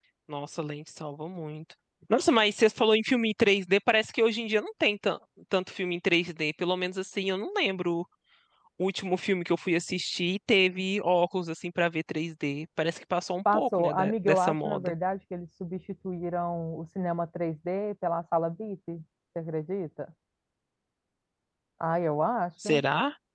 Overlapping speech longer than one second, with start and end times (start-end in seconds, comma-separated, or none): 13.5-14.9